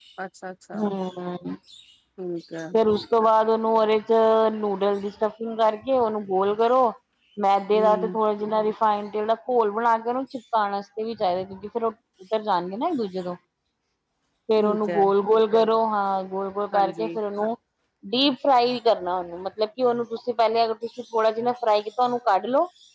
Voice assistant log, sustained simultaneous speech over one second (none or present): none